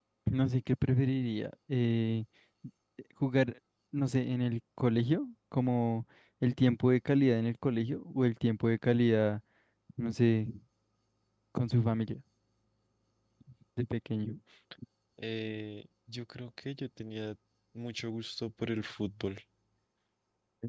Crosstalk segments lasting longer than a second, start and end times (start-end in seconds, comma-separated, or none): none